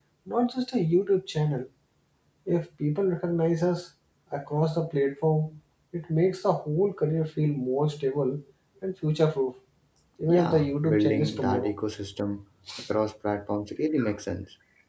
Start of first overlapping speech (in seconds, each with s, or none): 10.3 s